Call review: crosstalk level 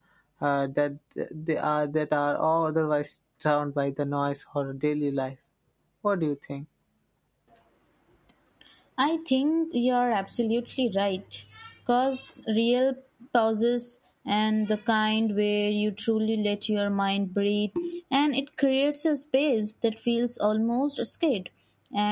none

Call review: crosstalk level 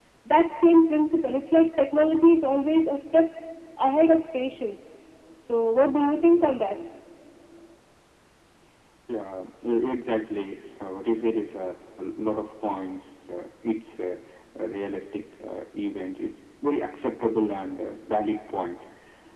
none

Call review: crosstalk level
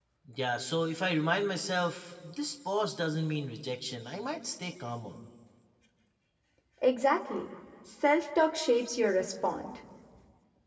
none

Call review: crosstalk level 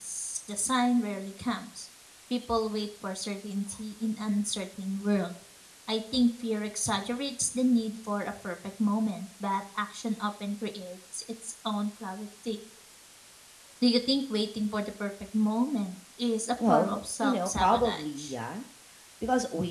present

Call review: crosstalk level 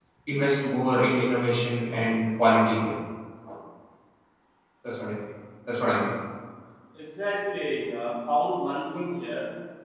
none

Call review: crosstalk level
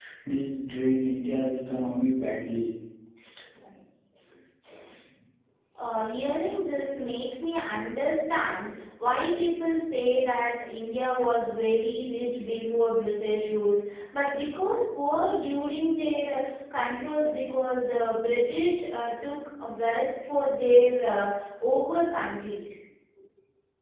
none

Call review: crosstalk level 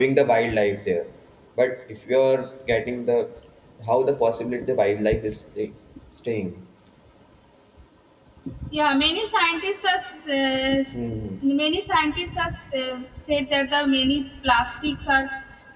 none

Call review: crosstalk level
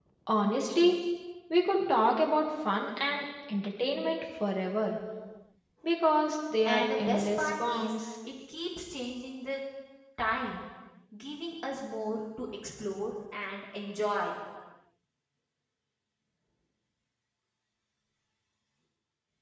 present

